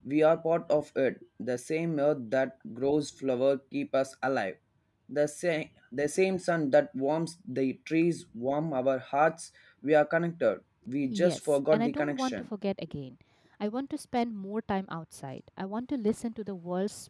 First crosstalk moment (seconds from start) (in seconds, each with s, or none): 11.1 s